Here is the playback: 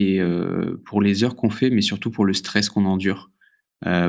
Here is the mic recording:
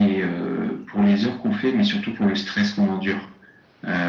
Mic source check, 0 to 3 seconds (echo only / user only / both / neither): echo only